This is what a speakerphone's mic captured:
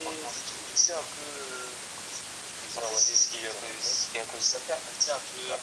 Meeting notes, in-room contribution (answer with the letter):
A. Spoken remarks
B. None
B